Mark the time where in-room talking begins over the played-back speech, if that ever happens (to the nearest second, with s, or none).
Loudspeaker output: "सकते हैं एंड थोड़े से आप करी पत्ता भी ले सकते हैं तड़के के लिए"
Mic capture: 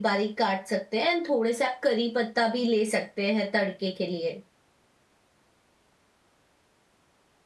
none